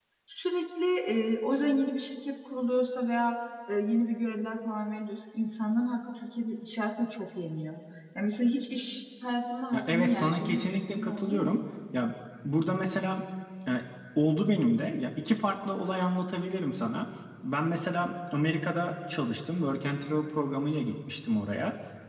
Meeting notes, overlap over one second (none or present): present